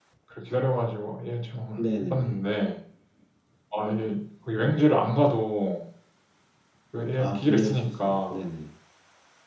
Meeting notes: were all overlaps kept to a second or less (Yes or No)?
No